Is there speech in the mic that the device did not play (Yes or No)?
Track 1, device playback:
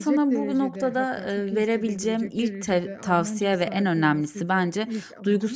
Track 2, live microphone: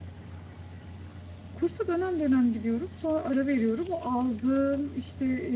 Yes